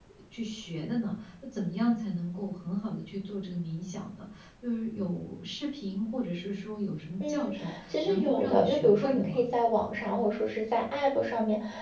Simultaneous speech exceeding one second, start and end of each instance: 7.3-9.4

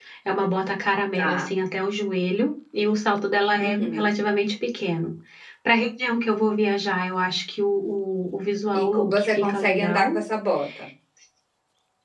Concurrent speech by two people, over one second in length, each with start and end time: 8.8-10.2

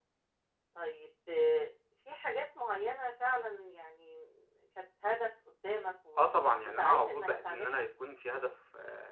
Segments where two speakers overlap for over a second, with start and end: 6.6-7.8

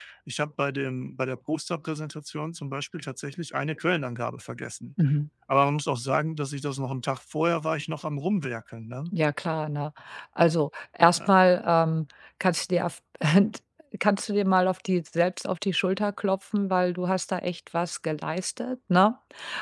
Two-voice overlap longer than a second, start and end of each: none

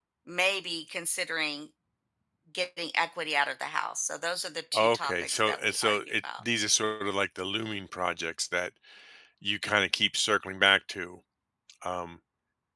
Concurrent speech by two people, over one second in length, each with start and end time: 4.7-6.4

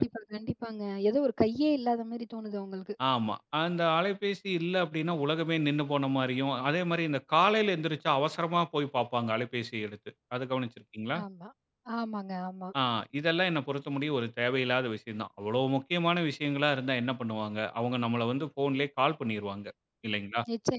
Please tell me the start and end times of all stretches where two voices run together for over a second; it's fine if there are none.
none

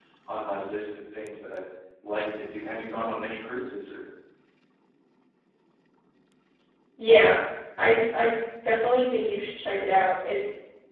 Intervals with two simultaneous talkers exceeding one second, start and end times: none

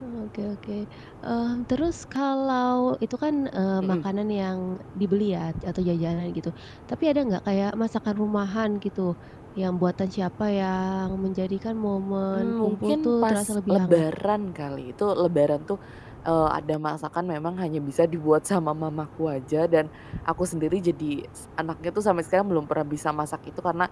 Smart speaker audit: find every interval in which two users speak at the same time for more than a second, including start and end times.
12.3-14.0

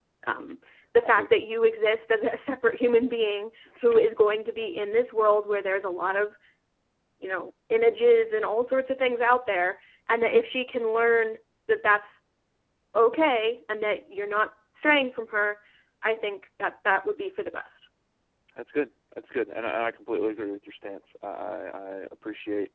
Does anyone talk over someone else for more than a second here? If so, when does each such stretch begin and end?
none

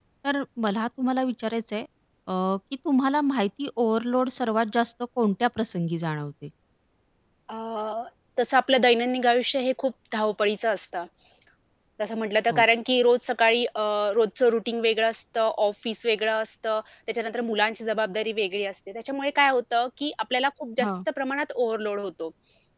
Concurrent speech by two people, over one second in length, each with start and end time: none

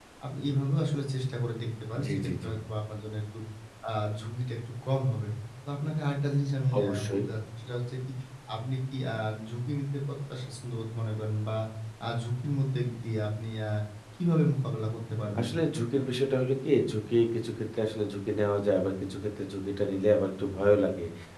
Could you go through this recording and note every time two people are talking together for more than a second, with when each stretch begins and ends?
none

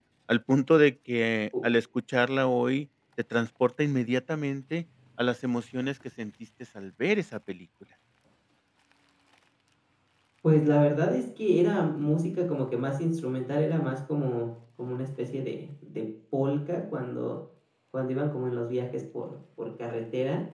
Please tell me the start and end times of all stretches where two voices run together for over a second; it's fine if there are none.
none

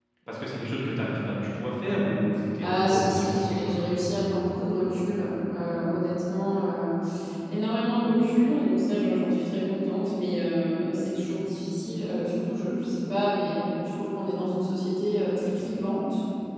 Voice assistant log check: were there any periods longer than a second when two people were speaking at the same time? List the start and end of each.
2.6-3.9

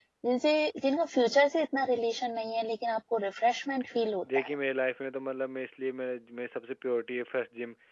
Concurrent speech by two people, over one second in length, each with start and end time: none

